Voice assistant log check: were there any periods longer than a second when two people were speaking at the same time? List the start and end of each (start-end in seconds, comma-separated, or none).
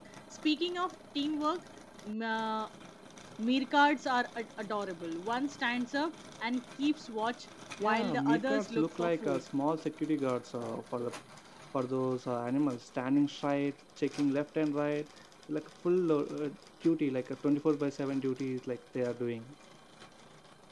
7.8-9.4